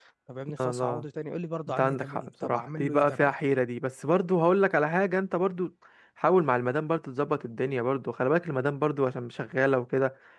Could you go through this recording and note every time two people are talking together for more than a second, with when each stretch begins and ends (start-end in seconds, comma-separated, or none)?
1.7-3.4